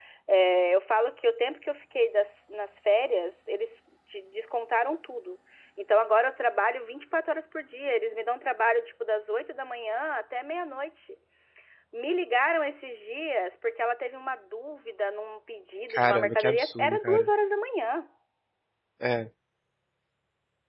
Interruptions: present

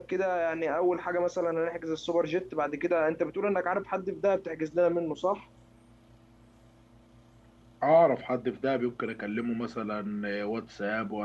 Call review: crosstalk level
none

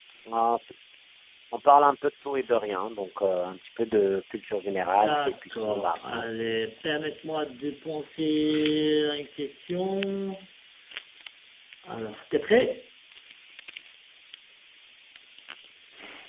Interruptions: present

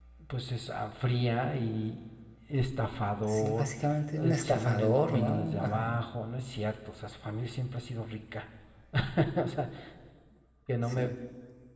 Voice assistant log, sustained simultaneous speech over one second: present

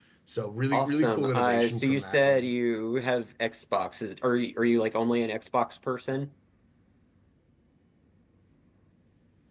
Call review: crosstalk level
present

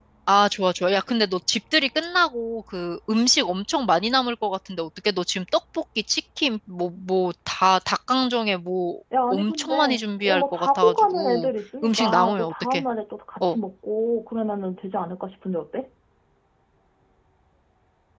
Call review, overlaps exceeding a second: present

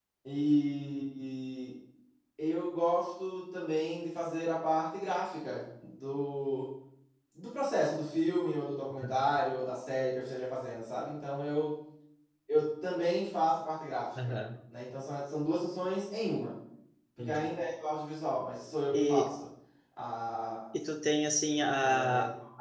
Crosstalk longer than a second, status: none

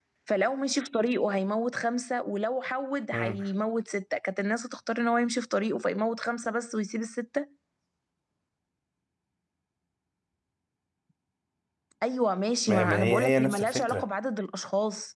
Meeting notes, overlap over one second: present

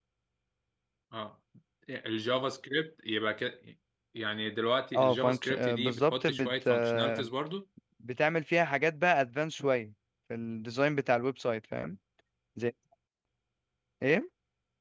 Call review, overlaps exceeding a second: present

